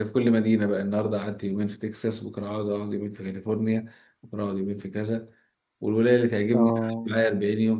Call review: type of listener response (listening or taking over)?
listening